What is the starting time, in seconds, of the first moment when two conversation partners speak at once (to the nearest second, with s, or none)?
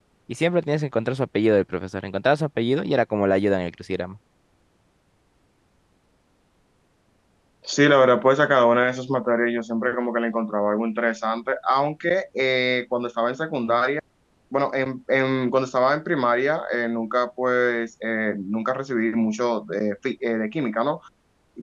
none